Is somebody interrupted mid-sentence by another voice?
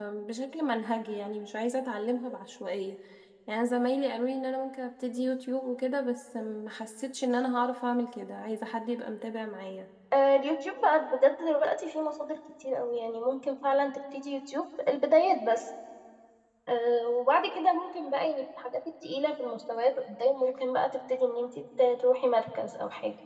No

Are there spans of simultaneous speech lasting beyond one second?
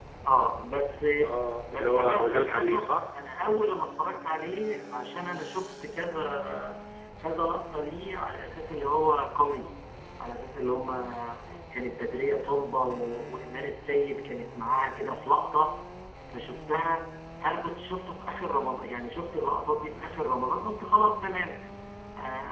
Yes, from 1.7 s

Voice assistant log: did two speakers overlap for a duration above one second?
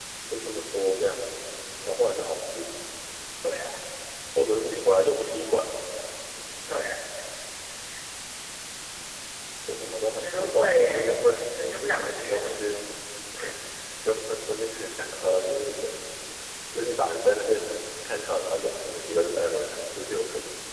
Yes, from 10.1 s

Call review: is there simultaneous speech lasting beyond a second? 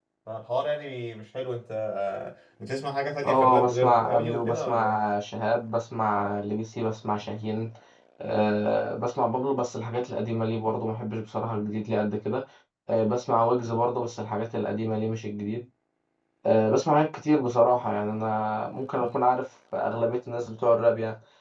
Yes, from 3.2 s

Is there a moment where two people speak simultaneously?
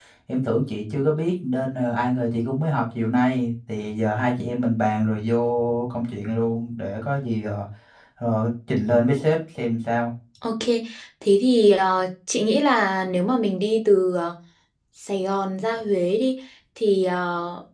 No

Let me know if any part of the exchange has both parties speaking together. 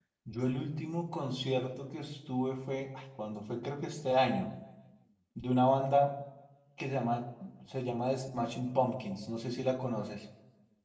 No

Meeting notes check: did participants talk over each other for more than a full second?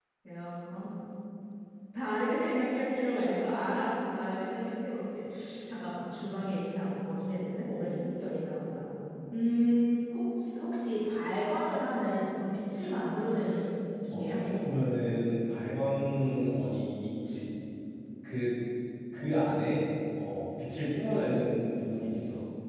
No

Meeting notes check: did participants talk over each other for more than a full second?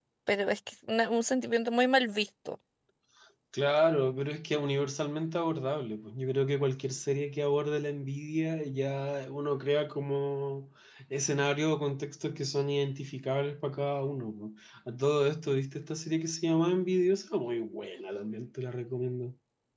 No

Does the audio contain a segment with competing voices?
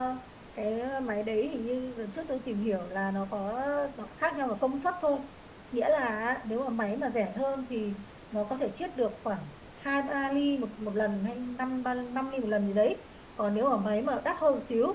No

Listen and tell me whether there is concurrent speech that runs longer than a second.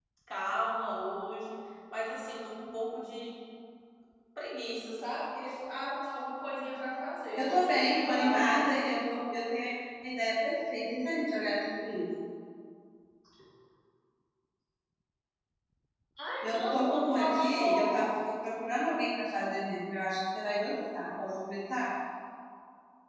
Yes, from 7.3 s

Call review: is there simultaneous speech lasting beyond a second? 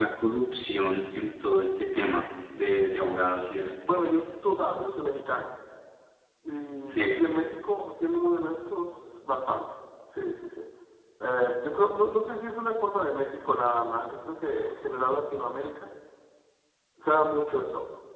No

